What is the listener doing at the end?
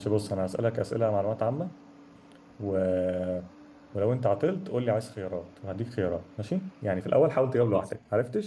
listening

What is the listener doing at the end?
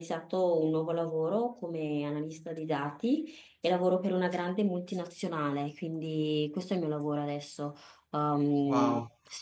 taking over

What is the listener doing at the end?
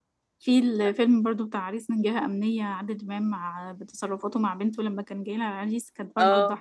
listening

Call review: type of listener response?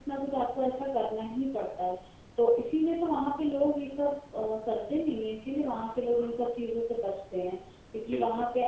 listening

